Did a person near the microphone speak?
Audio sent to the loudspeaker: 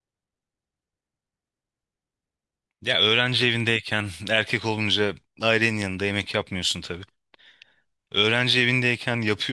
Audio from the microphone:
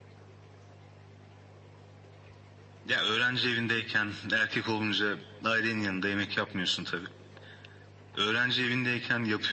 No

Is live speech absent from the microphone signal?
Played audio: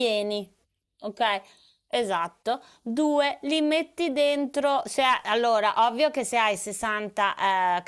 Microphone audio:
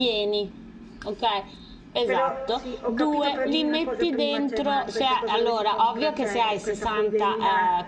No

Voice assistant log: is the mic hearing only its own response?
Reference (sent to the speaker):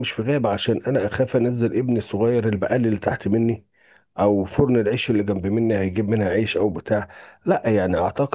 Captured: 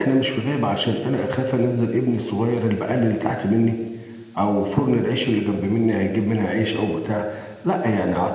Yes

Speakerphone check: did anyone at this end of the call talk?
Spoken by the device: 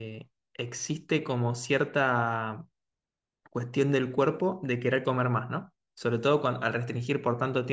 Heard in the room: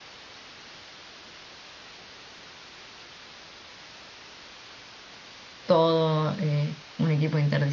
Yes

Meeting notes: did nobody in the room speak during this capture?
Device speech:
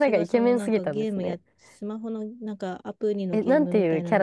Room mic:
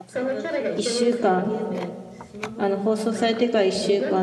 No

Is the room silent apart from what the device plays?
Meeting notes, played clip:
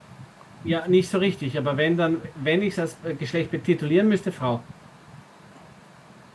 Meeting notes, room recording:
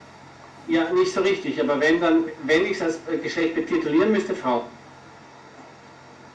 Yes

